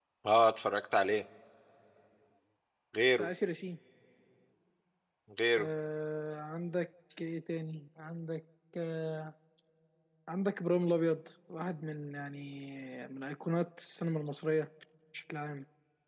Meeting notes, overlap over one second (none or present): none